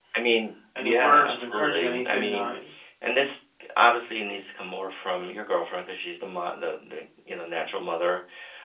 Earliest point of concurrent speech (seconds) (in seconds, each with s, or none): 0.8 s